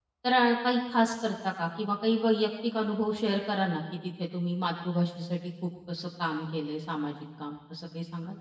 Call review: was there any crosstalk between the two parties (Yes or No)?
No